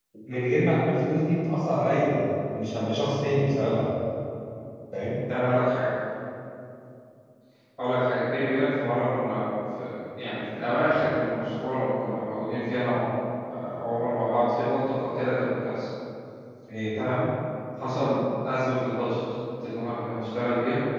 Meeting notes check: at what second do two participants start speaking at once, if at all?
none

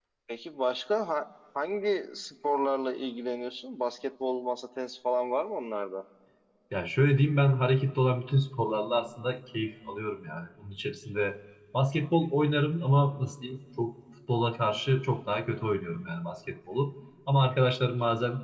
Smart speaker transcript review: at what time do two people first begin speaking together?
none

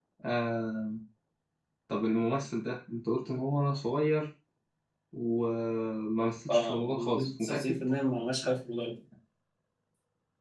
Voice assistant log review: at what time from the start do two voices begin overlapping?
6 s

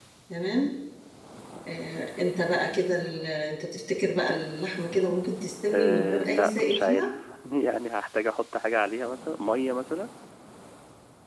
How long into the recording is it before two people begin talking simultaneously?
6 s

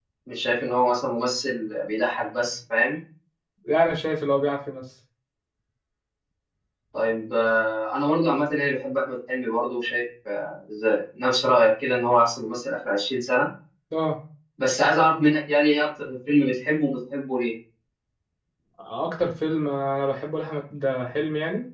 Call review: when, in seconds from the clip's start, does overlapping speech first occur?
none

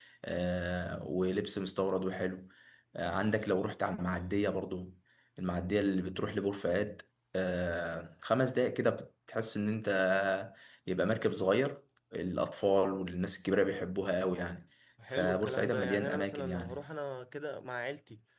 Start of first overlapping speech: 15 s

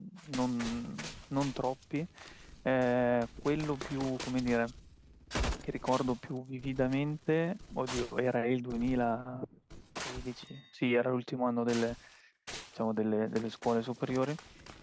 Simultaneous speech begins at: none

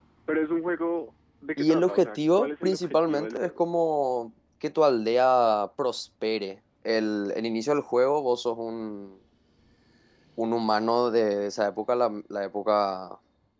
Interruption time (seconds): 2 s

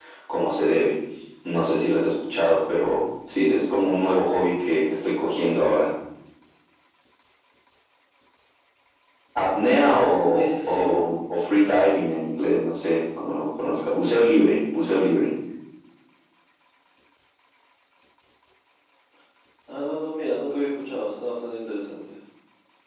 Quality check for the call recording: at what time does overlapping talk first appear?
10 s

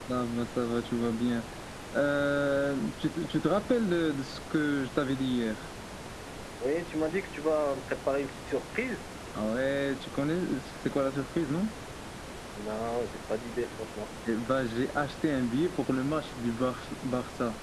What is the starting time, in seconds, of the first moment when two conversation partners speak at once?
none

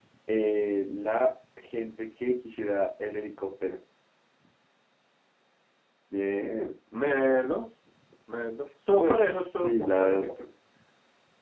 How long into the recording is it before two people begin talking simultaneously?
9 s

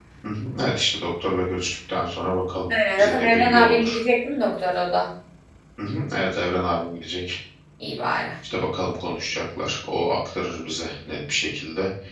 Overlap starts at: 3 s

